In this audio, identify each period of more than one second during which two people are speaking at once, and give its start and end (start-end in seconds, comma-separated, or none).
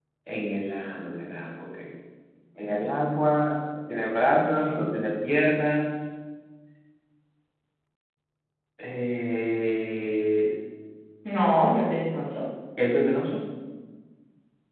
none